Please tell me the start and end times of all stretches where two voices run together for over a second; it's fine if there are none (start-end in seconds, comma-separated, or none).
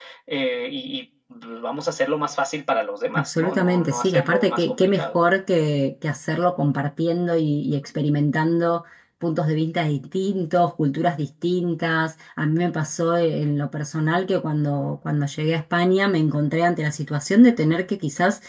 3.1-5.2